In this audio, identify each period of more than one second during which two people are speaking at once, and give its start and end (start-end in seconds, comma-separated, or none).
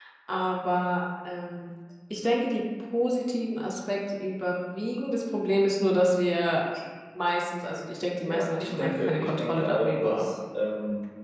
8.3-10.3